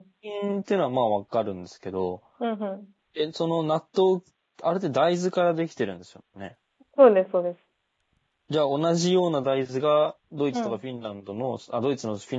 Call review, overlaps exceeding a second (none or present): none